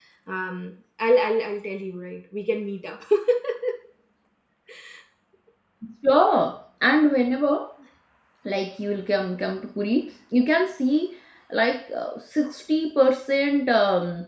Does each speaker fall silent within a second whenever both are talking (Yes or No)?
Yes